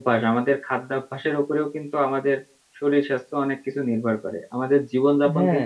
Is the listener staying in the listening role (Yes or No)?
Yes